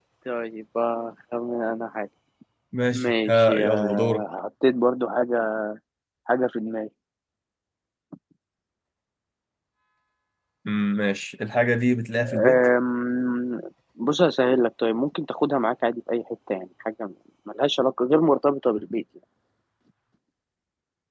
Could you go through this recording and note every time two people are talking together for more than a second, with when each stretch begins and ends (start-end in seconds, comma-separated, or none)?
2.9-4.2